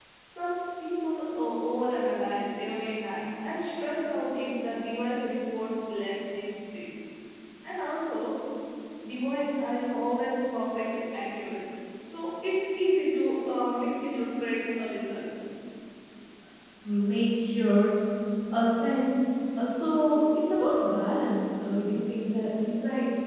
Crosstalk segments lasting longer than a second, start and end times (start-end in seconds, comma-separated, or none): none